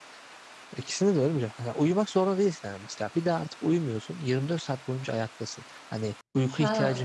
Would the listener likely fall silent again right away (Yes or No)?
No